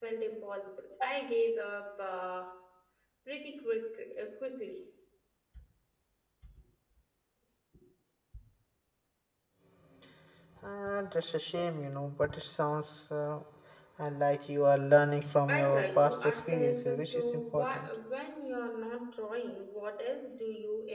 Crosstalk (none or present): present